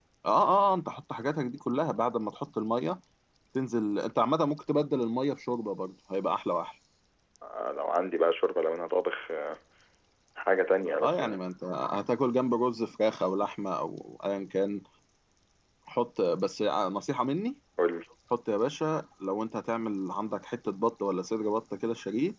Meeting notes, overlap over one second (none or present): none